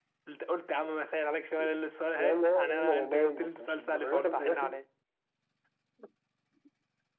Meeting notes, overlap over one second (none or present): present